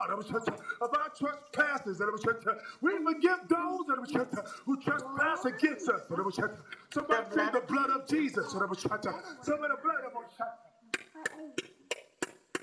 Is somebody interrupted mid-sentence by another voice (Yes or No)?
Yes